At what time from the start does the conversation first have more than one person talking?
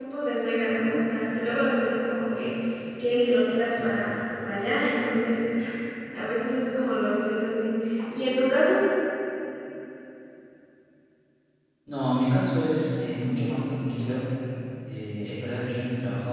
none

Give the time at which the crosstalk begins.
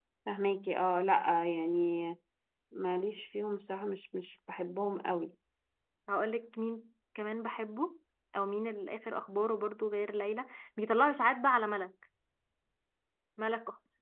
none

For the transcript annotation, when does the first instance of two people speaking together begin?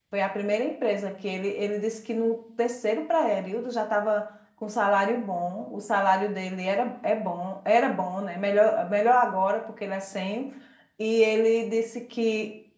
none

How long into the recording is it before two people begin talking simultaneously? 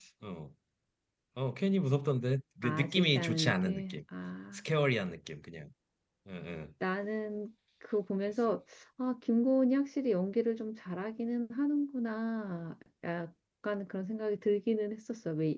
2.6 s

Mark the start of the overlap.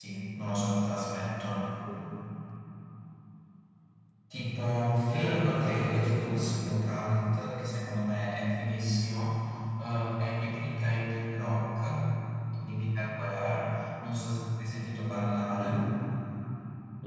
5.1 s

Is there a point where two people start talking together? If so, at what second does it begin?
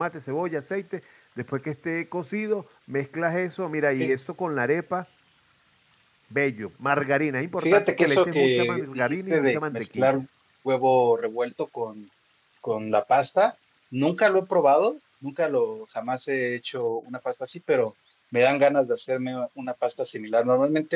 7.6 s

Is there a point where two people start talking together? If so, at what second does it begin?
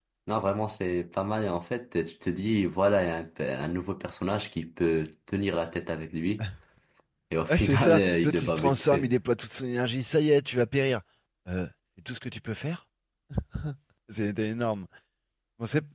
7.5 s

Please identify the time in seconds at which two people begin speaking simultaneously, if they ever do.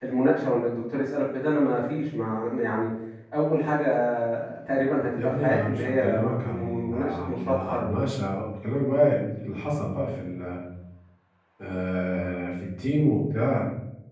5.2 s

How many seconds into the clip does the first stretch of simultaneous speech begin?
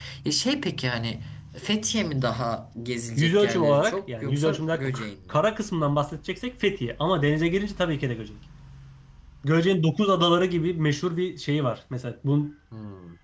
3.2 s

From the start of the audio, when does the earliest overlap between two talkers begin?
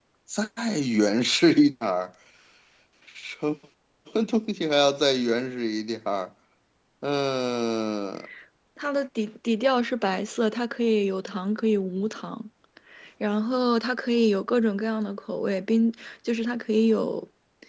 none

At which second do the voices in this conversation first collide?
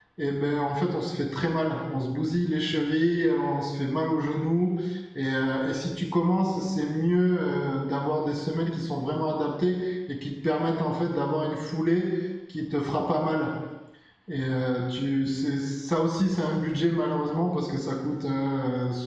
none

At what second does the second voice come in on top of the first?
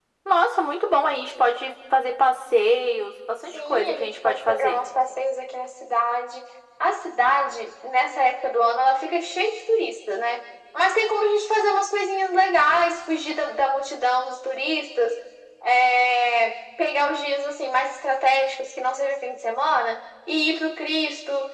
3.5 s

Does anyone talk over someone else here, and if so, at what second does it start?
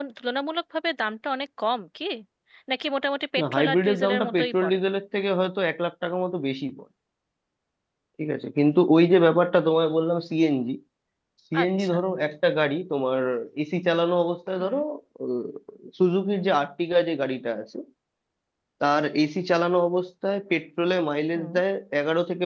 3.4 s

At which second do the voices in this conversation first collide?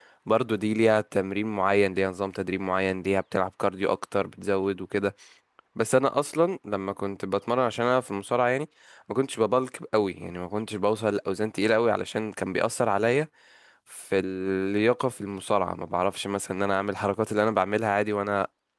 none

